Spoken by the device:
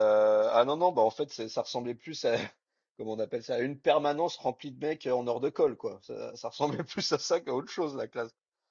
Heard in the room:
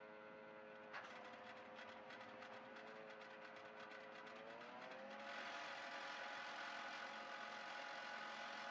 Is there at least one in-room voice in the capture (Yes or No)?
No